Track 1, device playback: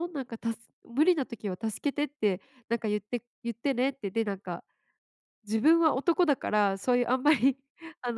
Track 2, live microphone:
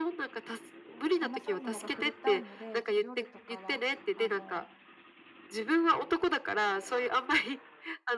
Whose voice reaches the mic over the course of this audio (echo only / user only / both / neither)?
both